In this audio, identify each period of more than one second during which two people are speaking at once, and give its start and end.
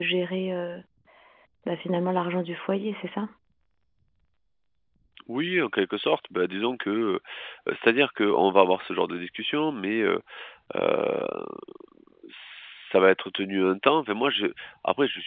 none

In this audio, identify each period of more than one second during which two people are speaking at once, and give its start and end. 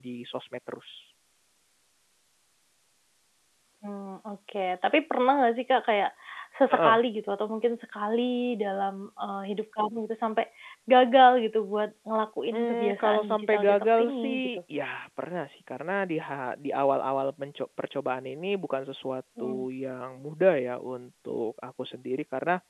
12.5-14.5

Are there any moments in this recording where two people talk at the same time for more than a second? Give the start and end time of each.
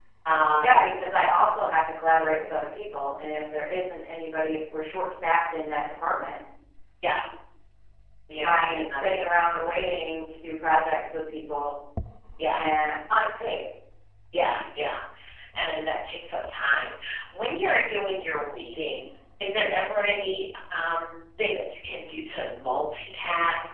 8.4-9.7

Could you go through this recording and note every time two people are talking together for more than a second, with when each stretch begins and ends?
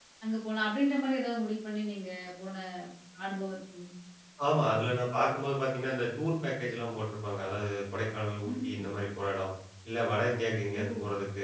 none

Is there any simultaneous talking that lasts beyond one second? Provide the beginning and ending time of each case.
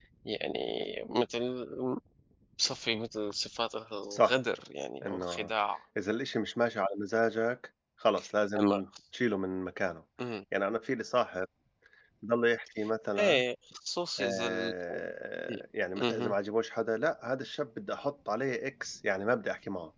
none

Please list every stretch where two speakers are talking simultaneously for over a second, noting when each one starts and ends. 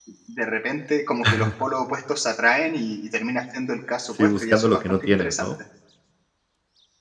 4.2-5.5

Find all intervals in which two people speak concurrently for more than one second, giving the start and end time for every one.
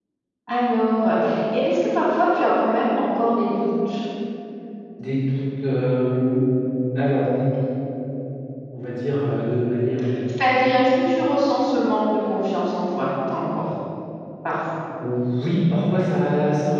none

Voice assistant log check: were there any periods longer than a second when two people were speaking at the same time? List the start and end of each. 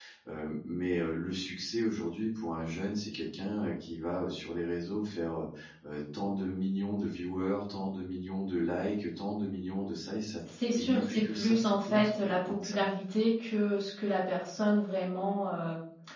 10.8-12.8

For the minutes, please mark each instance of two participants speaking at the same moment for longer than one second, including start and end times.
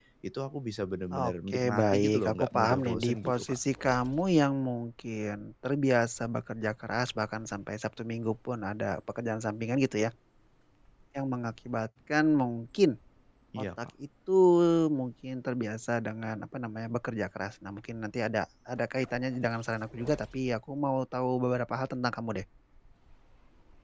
1.3-3.6

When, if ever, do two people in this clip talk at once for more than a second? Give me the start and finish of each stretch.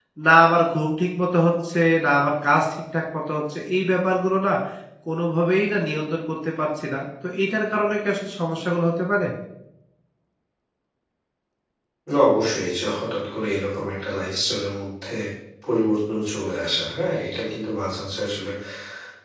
none

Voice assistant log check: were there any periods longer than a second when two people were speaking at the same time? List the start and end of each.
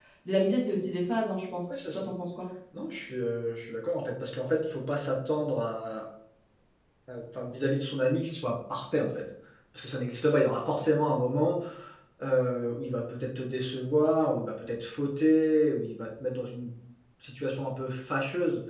none

